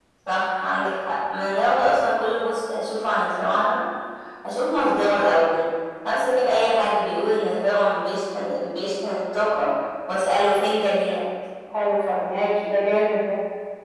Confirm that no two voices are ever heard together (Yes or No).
Yes